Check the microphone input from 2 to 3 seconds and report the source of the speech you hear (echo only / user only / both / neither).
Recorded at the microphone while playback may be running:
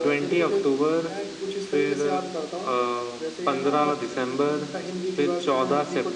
echo only